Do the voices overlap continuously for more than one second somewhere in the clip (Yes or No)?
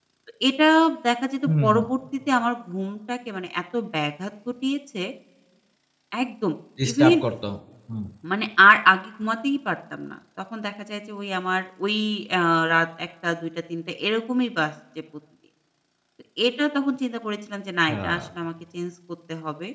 No